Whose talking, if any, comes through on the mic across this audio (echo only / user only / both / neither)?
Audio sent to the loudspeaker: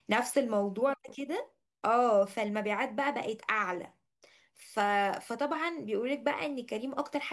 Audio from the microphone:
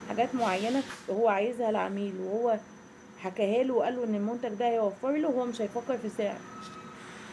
user only